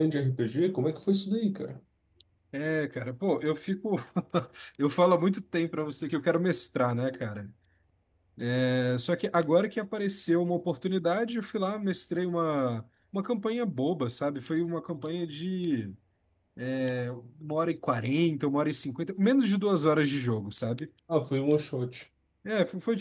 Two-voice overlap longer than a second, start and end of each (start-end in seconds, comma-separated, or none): none